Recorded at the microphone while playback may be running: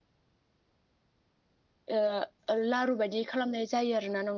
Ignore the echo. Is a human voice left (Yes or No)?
Yes